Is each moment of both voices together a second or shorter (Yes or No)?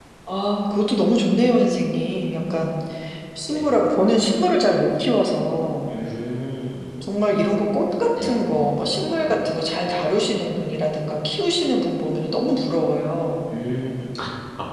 Yes